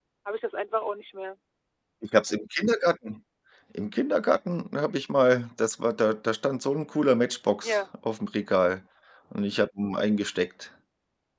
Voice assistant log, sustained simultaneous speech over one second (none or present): none